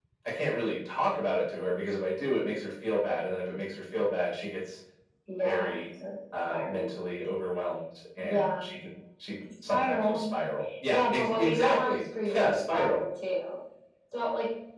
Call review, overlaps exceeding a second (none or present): present